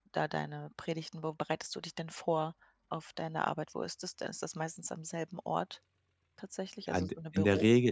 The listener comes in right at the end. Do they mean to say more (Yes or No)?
Yes